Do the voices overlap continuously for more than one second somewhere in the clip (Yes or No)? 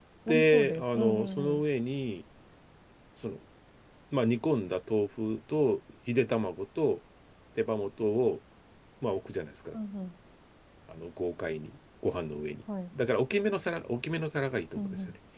Yes